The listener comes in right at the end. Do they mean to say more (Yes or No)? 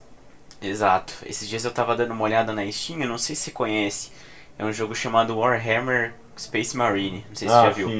Yes